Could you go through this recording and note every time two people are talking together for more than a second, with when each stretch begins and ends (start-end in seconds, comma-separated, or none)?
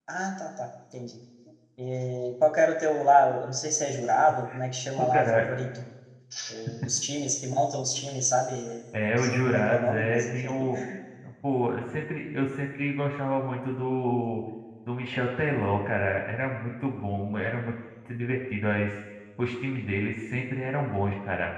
9.1-10.6